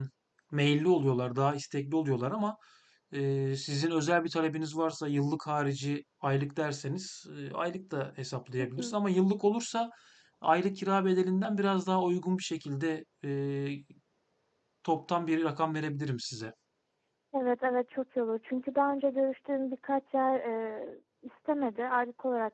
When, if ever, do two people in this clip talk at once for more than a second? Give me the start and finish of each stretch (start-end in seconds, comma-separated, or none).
none